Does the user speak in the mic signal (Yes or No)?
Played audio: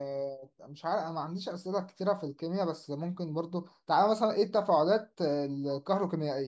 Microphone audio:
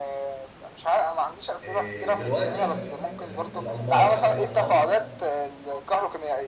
Yes